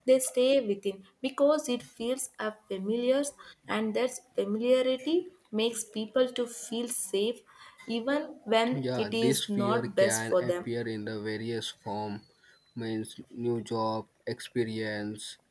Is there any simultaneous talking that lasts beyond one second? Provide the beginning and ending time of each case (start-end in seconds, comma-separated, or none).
8.7-10.5